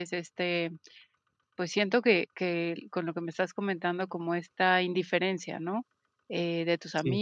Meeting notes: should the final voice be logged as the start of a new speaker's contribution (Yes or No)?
No